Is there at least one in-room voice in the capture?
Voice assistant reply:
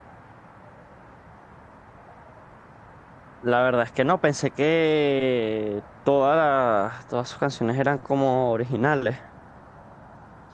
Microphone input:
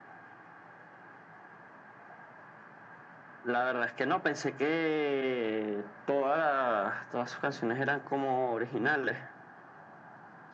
No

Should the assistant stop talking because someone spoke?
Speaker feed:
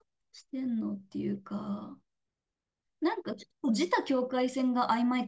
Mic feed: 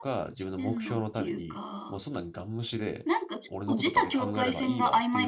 Yes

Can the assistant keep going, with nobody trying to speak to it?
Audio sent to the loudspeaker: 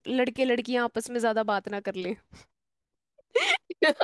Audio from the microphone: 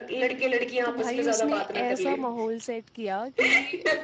No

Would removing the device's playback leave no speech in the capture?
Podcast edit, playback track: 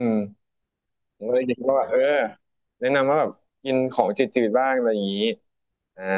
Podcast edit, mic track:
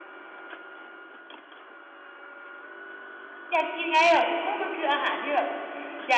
No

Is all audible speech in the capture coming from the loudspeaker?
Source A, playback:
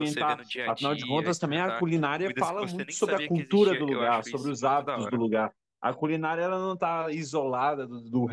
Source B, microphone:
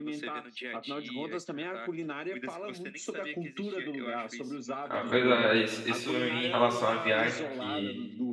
No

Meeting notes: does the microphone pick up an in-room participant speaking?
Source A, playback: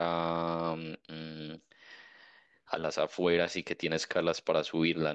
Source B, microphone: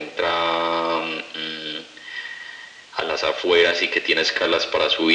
No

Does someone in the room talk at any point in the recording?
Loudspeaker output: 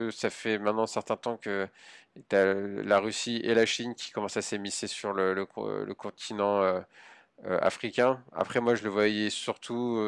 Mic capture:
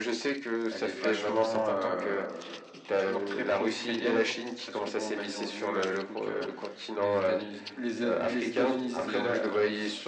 Yes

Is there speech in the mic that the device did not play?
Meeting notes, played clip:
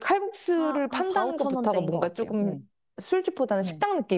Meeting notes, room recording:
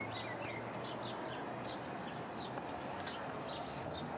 No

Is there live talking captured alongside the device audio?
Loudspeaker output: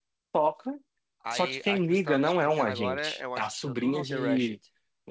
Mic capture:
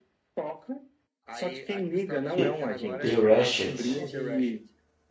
Yes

